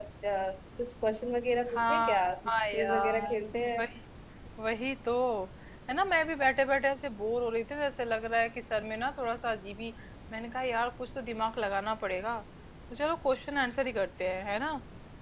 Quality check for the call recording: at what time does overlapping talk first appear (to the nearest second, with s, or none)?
2 s